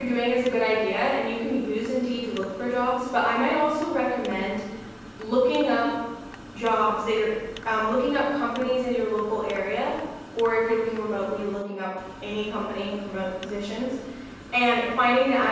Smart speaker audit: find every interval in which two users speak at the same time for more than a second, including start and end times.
none

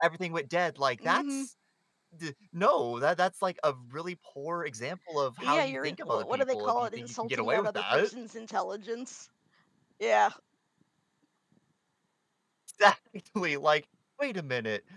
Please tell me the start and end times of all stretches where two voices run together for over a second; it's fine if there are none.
5.4-8.1

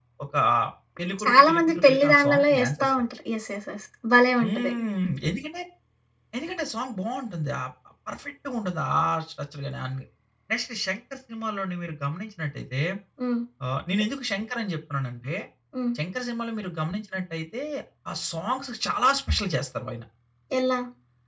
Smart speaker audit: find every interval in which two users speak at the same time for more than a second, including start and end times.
1.2-2.9

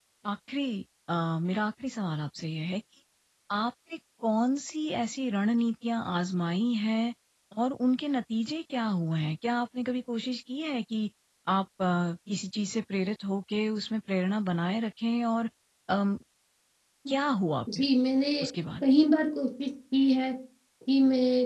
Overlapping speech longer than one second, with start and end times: none

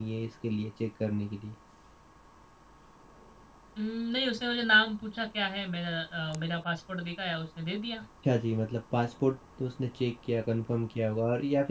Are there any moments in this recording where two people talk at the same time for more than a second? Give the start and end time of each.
none

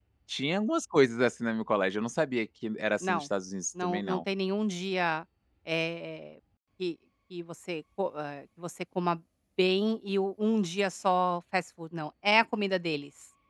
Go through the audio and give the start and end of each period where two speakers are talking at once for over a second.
none

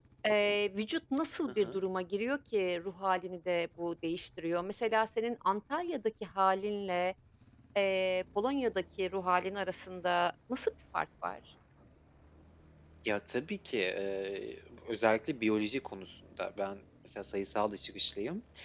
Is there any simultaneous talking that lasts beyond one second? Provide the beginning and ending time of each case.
none

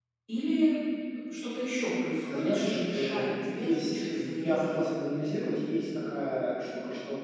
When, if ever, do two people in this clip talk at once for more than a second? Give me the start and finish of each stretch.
2.2-4.8

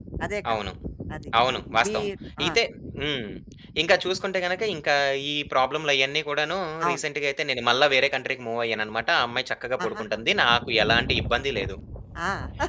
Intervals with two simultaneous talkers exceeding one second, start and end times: none

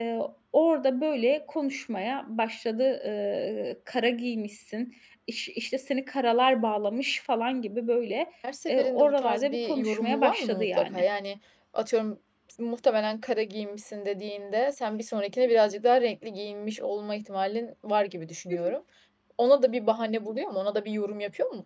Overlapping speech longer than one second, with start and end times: 8.7-11.0

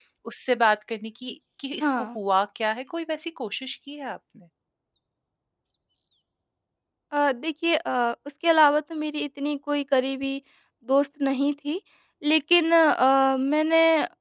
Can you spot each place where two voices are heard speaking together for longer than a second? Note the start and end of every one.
none

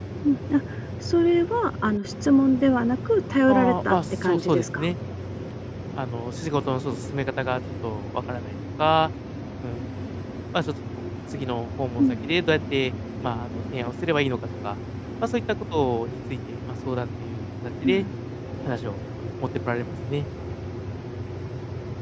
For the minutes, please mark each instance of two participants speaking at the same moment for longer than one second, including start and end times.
3.5-4.9

